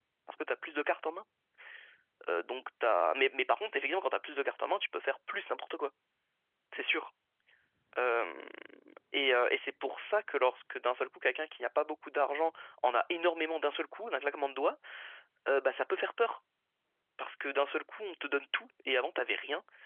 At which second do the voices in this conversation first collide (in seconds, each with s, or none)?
none